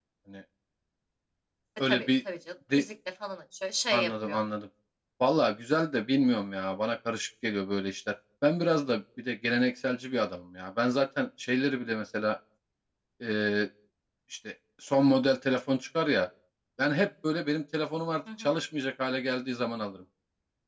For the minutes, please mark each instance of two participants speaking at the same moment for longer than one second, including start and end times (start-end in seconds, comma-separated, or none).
none